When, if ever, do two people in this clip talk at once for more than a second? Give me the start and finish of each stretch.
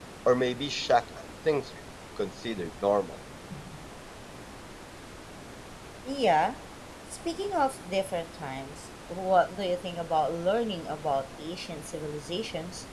none

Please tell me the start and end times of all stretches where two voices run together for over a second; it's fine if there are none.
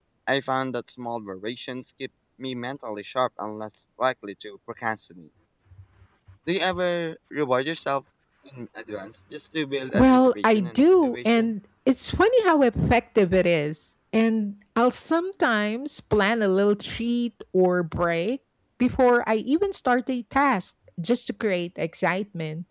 9.9-11.5

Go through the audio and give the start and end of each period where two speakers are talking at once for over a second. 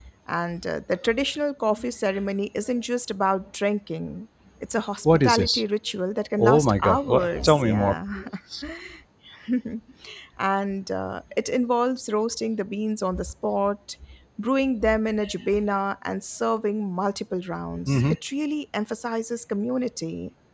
6.4-7.9

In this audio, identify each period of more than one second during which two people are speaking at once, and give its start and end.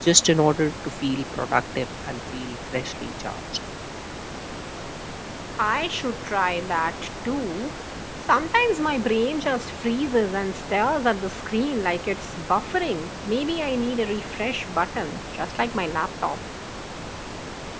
none

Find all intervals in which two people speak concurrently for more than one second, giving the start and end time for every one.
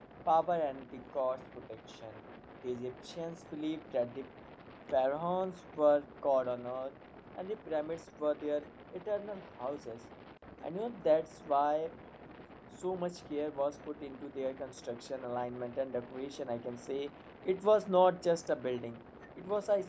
none

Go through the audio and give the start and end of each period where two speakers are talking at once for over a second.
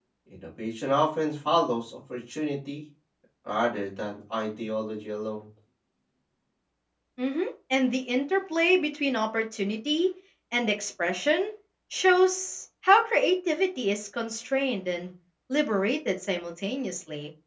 none

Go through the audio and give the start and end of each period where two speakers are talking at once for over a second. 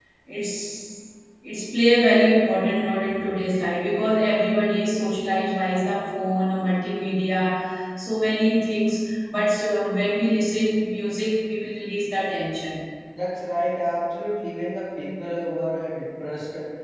none

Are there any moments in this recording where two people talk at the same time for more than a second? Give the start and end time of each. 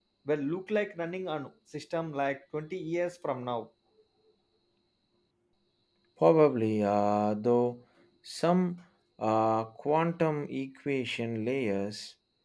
none

